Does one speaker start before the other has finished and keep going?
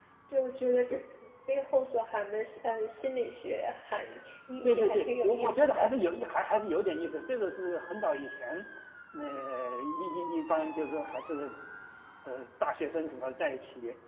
Yes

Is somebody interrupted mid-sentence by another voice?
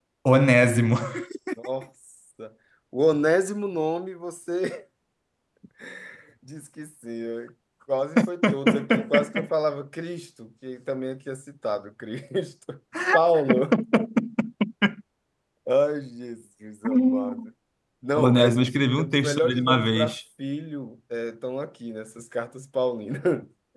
Yes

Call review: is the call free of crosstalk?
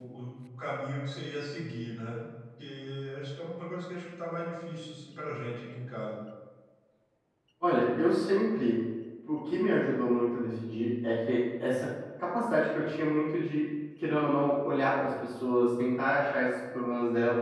Yes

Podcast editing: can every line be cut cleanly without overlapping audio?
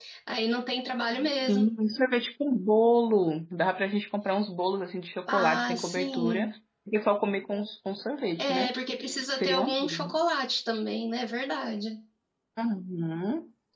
No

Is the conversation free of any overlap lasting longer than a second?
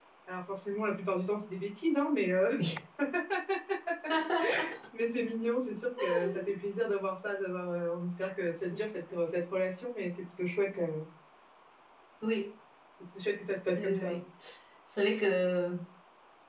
Yes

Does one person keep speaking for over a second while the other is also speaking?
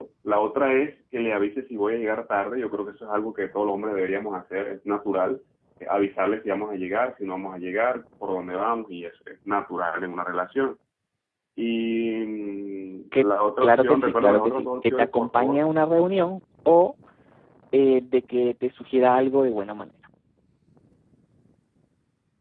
Yes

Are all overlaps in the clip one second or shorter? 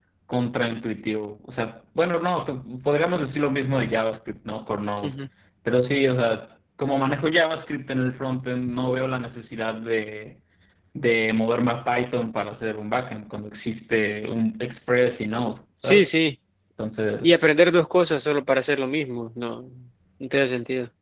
Yes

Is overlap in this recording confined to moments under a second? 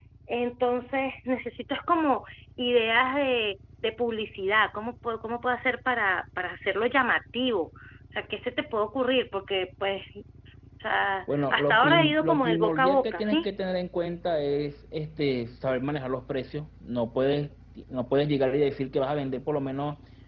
No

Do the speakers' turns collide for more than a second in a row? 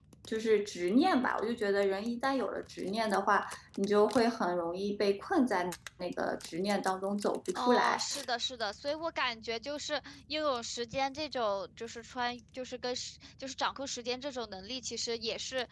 No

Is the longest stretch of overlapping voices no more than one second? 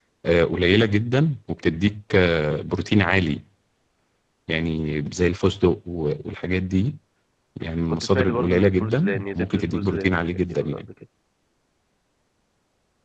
No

